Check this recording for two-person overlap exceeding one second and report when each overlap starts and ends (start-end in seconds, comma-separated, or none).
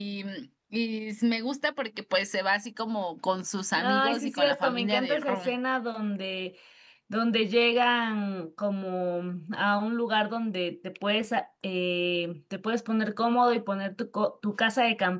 3.8-5.5